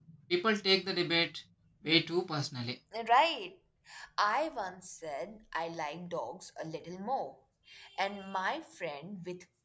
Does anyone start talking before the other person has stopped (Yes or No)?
No